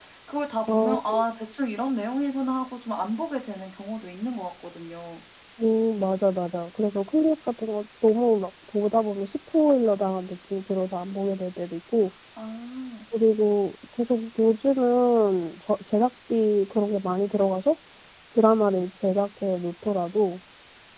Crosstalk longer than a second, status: none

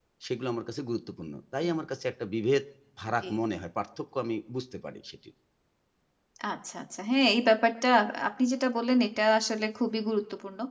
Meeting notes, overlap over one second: none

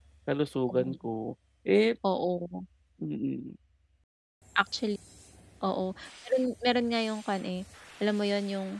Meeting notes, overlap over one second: none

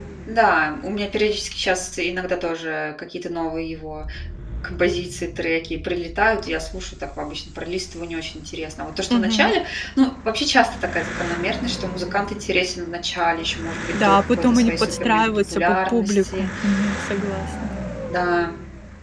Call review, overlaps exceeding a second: present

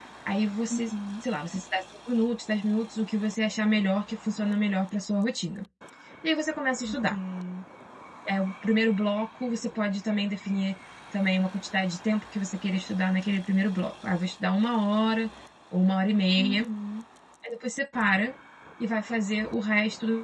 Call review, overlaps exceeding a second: none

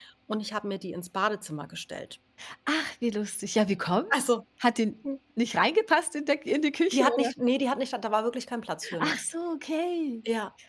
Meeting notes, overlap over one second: none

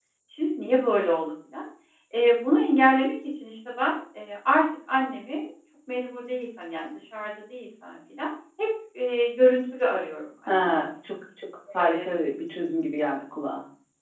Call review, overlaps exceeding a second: none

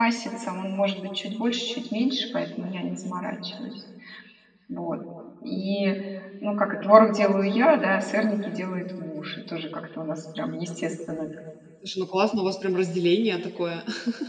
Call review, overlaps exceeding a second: none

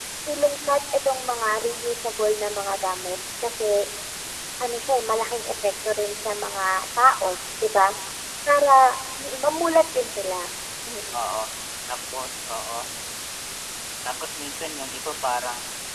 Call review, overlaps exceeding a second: none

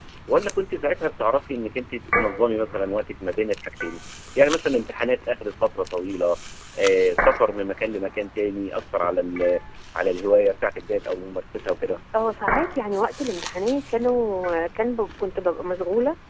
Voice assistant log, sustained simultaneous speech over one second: none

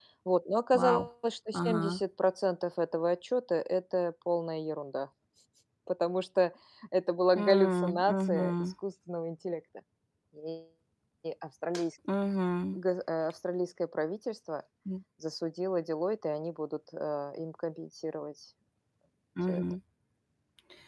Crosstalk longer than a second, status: present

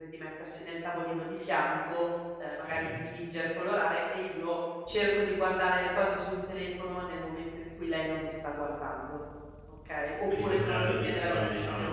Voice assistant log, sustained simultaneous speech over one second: present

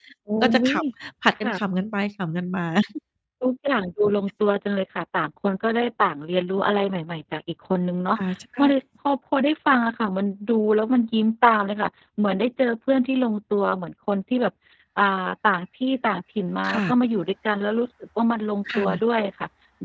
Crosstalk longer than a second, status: none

